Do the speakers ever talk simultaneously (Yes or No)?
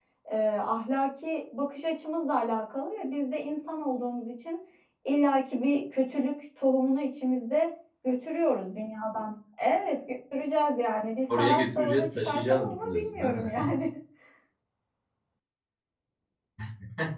Yes